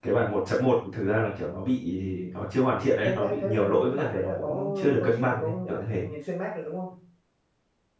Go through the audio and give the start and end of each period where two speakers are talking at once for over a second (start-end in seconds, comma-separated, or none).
3.0-6.0